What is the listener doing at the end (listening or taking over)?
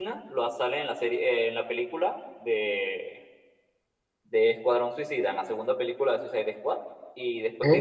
listening